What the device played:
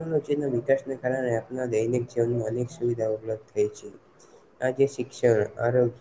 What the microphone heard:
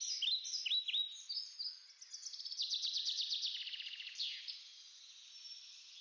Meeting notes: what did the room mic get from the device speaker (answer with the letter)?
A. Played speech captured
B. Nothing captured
B